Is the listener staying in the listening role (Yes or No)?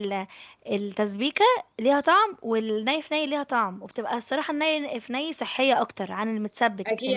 No